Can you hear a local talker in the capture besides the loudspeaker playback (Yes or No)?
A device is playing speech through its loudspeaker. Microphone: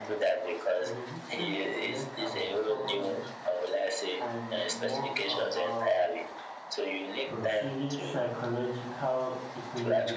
Yes